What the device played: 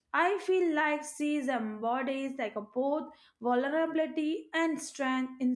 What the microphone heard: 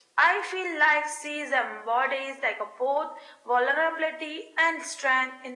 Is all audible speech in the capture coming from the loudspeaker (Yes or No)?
Yes